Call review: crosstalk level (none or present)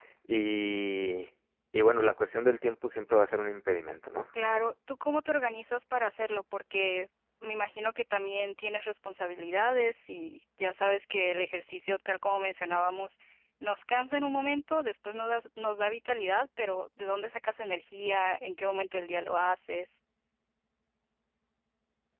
none